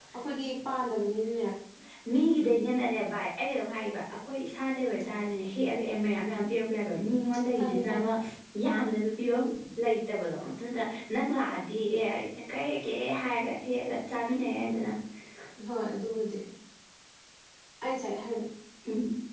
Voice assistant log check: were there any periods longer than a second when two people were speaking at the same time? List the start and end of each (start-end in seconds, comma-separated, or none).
none